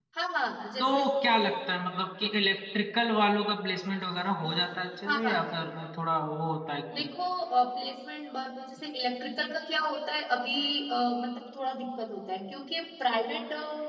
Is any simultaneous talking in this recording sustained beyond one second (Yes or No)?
No